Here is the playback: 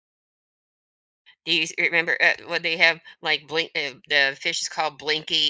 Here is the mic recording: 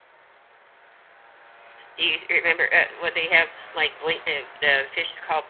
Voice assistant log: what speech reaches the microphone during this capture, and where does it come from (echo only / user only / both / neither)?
echo only